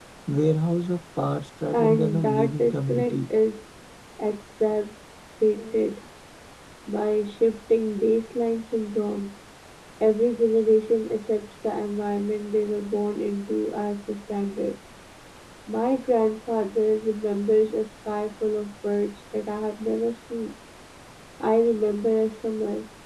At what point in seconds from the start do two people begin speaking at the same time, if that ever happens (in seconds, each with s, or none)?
1.7 s